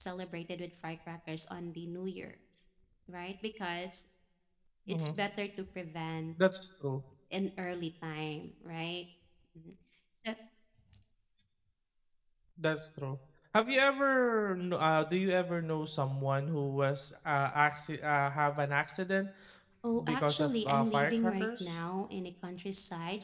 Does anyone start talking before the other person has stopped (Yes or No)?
Yes